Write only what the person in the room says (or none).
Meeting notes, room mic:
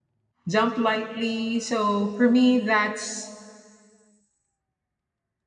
jump lightly. So for me, that's